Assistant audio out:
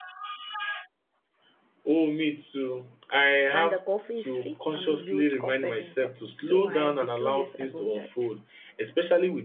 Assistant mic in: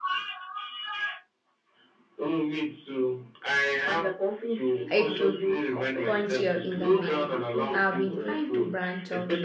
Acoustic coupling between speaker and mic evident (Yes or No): Yes